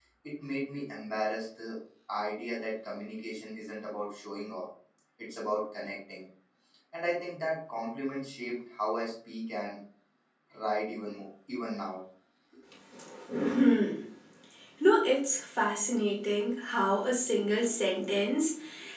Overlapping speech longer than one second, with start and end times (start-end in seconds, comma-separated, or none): none